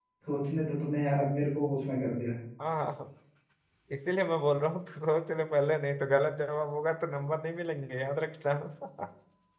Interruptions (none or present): none